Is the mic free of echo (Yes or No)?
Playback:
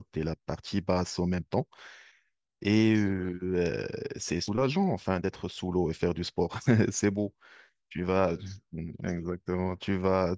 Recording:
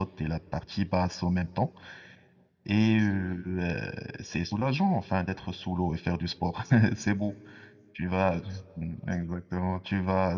No